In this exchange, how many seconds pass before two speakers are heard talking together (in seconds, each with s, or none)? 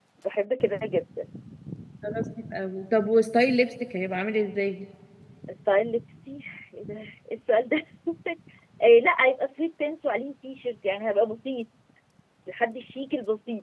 none